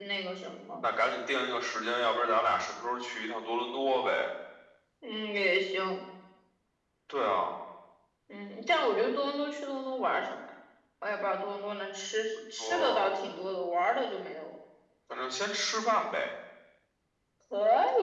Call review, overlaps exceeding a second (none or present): none